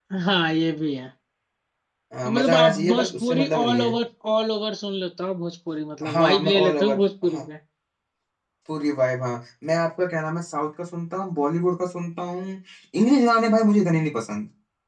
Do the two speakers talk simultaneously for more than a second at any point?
Yes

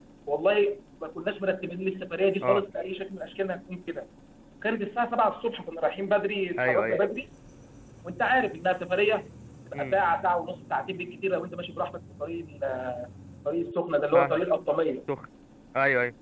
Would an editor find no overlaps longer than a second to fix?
Yes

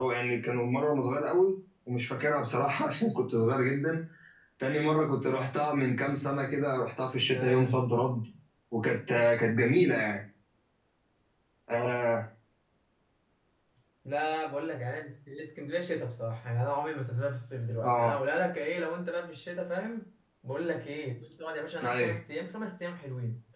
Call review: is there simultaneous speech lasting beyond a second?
No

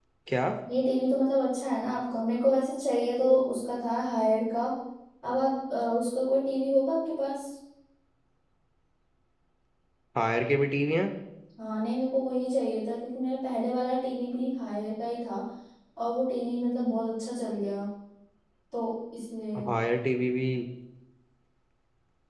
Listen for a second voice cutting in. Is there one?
No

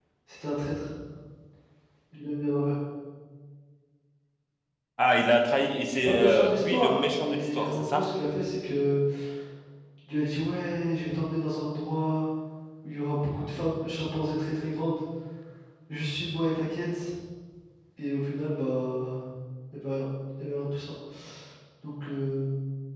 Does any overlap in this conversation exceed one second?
Yes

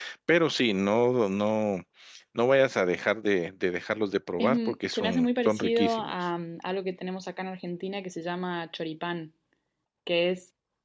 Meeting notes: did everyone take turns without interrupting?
No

